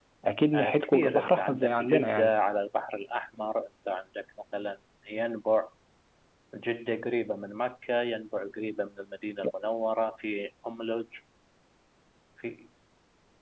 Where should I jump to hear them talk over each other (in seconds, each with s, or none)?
0.5 s